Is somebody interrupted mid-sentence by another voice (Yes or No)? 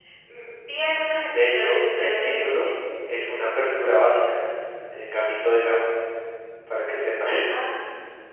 Yes